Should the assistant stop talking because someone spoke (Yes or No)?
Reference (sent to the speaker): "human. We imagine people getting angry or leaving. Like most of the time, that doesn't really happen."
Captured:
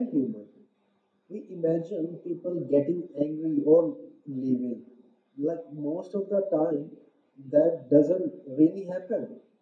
No